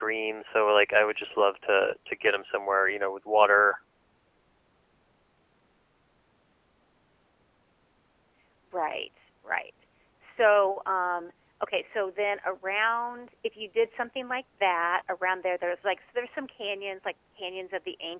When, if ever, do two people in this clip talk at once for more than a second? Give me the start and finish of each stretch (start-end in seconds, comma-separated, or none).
none